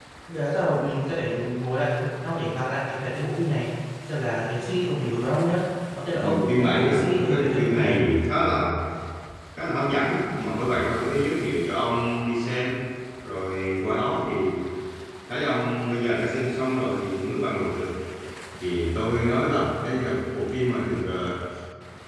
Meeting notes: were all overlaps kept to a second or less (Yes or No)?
No